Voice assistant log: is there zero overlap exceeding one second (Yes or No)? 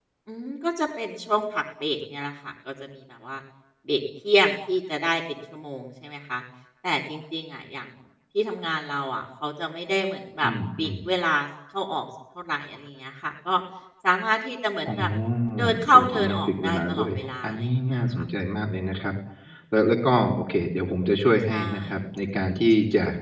No